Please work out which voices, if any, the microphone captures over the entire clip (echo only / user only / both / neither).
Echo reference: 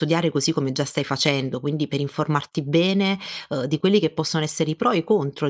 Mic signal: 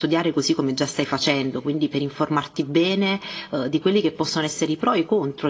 echo only